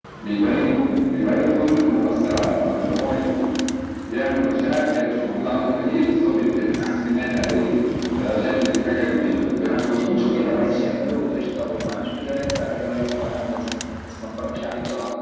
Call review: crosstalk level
present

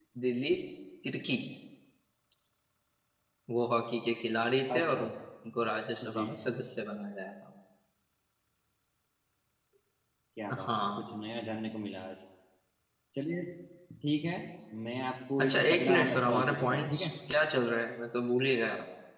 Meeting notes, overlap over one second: present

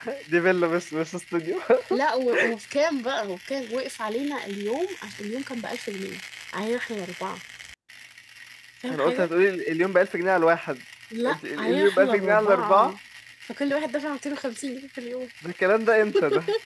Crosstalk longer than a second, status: present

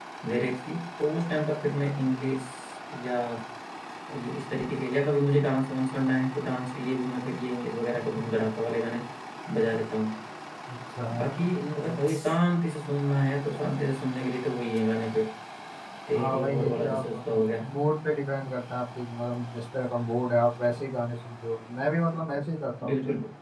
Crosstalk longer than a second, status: present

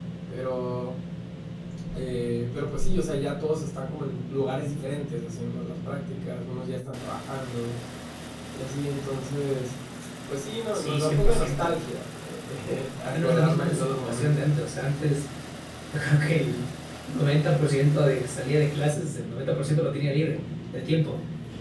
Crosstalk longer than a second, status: present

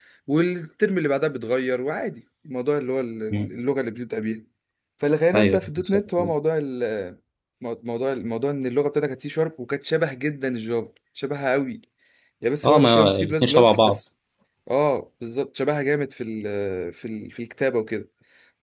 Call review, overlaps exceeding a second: present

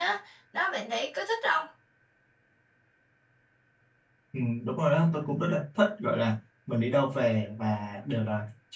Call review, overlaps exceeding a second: none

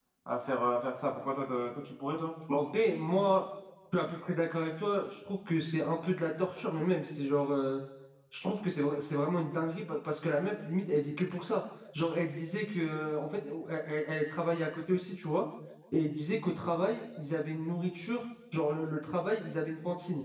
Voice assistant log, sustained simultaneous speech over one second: none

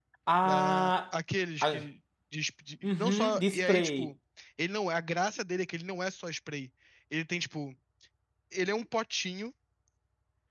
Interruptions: present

